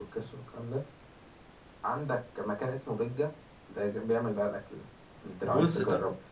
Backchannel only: No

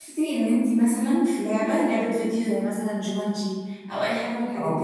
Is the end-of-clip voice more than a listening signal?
No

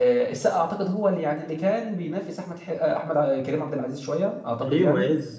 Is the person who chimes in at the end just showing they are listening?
No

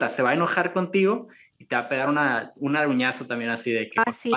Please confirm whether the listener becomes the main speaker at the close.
Yes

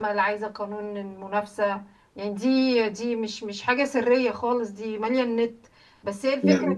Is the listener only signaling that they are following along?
Yes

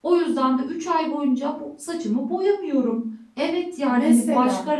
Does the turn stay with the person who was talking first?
Yes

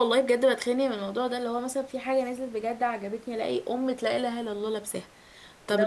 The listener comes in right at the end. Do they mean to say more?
Yes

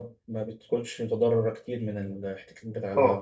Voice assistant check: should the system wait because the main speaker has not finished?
No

